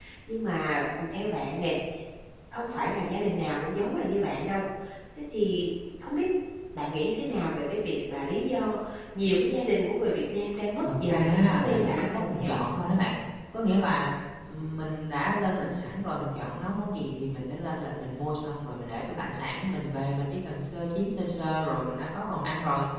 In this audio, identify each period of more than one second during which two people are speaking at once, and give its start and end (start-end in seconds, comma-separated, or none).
11.1-12.7